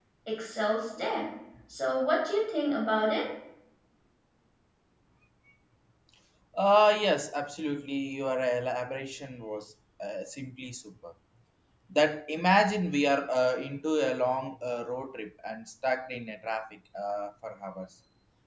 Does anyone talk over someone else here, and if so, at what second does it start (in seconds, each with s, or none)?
none